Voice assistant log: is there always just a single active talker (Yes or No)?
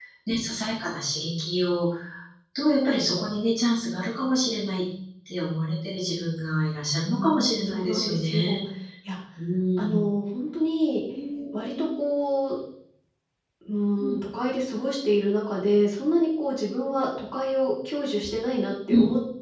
No